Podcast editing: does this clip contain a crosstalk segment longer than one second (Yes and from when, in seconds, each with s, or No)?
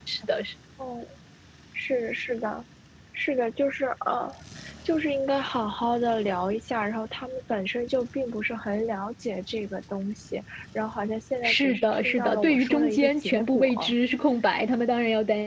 Yes, from 11.4 s